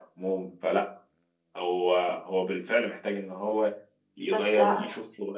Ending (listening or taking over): listening